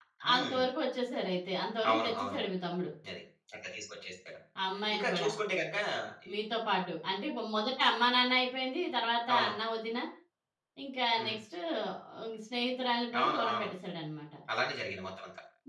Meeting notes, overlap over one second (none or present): none